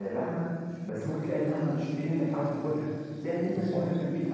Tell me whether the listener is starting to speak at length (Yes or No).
No